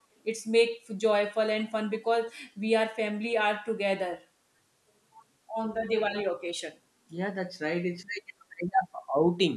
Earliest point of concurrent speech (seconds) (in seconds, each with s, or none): none